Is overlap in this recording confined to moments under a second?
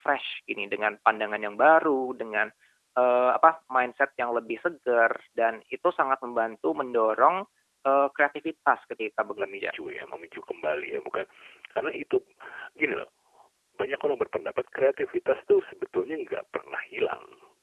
Yes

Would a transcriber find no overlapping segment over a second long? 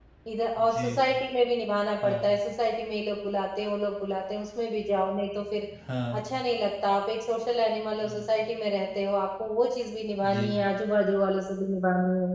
Yes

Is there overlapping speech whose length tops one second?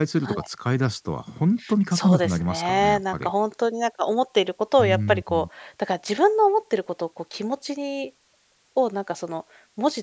Yes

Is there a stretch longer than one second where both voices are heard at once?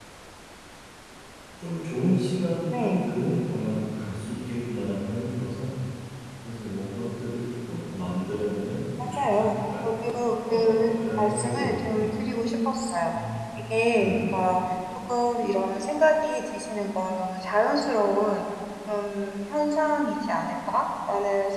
Yes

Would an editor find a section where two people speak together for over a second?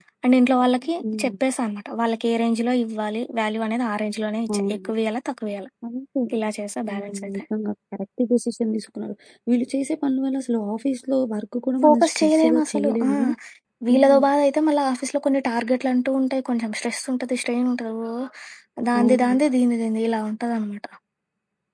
Yes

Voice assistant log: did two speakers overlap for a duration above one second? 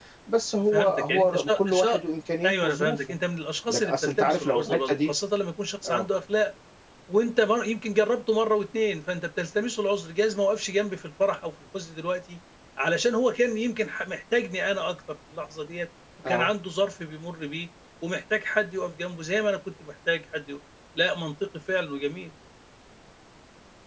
Yes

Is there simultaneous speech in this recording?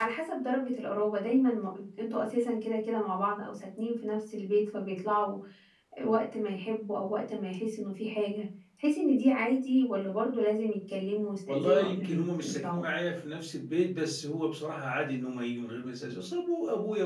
Yes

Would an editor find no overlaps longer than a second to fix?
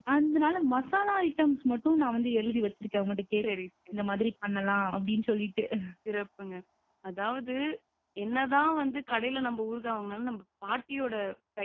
Yes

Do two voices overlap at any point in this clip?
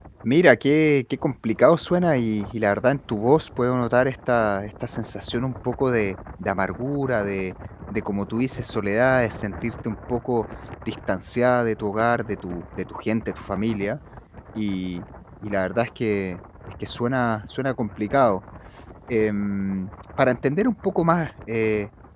No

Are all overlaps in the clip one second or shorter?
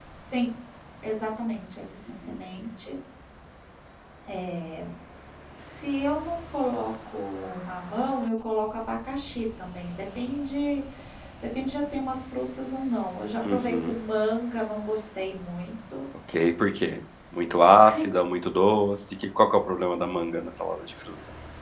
Yes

